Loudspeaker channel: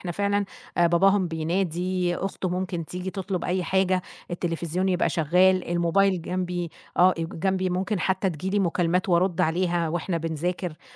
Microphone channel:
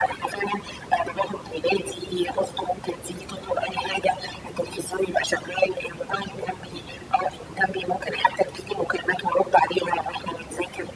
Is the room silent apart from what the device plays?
Yes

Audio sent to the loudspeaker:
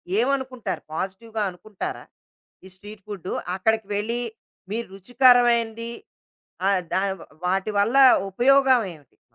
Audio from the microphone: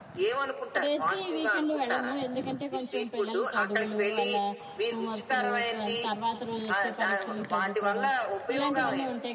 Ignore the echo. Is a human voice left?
Yes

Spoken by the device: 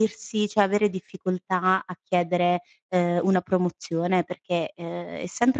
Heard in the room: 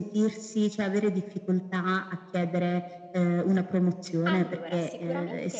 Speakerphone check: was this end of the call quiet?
No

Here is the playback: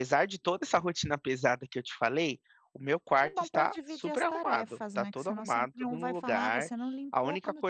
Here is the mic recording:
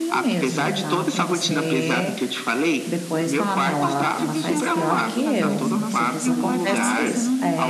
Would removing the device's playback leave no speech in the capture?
No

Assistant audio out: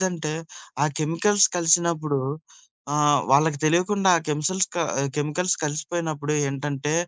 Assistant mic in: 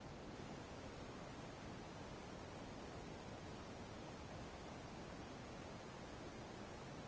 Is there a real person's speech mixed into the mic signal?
No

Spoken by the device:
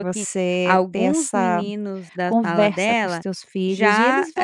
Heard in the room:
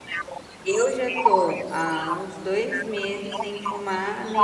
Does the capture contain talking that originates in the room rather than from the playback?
Yes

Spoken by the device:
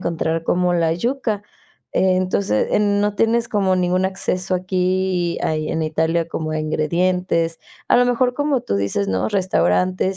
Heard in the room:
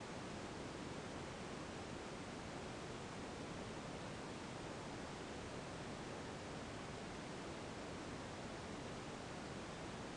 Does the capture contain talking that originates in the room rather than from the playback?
No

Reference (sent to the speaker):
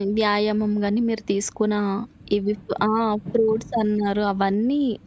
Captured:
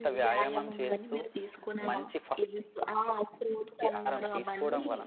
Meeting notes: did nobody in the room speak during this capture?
No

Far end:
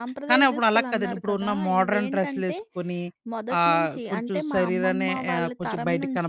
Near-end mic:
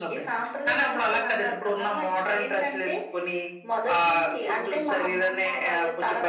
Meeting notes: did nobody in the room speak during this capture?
Yes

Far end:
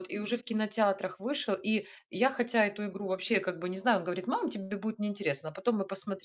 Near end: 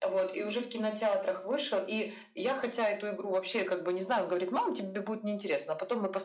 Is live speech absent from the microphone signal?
Yes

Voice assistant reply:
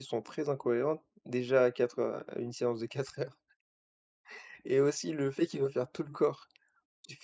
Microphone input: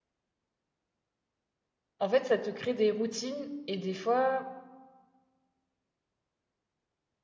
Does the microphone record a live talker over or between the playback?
Yes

